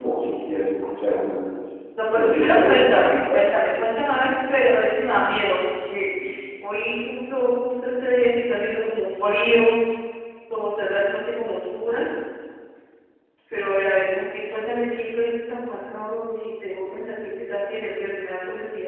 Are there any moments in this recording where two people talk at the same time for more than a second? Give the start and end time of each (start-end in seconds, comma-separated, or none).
2.1-3.4